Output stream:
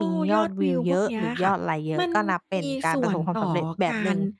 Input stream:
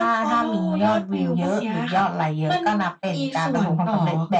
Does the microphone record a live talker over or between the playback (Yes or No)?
No